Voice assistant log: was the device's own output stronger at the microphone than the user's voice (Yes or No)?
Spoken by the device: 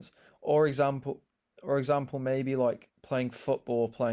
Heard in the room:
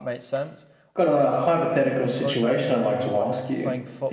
No